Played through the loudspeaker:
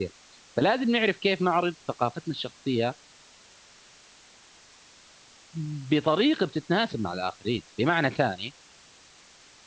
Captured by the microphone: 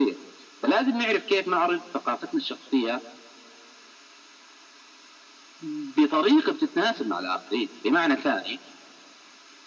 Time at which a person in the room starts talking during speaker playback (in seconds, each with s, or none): none